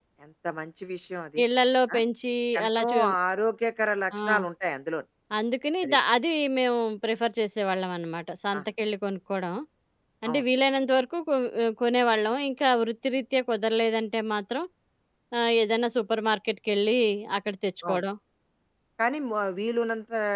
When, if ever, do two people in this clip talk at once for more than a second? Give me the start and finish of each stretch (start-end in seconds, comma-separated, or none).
none